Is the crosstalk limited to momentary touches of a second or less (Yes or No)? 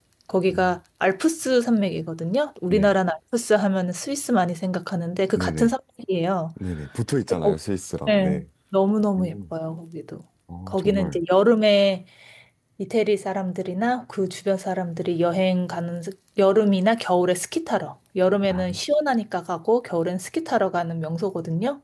Yes